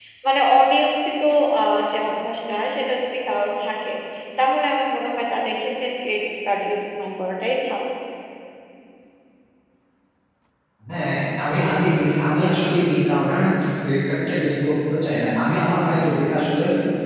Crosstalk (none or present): none